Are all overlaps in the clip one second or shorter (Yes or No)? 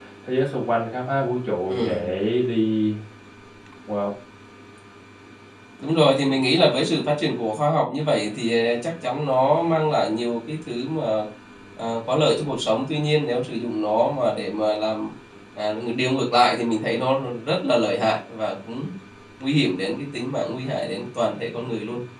Yes